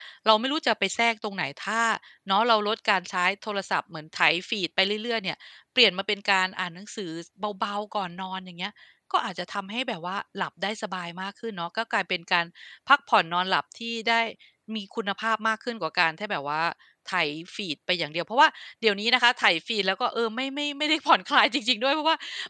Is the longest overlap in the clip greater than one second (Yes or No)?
No